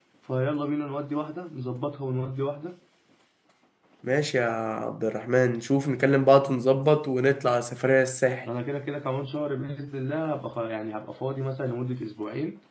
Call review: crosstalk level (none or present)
none